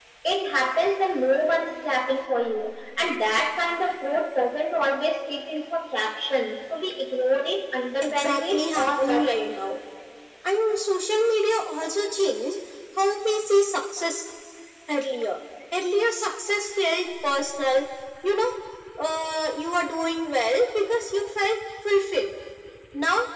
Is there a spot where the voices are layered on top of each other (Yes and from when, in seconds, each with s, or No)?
Yes, from 7.9 s